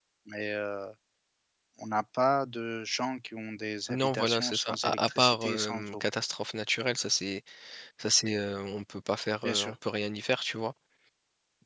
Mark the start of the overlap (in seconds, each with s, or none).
3.9 s